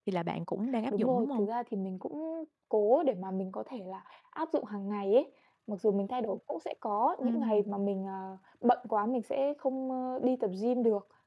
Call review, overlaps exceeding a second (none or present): none